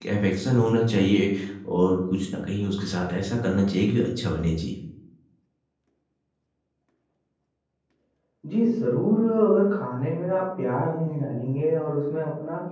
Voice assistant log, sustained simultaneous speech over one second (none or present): none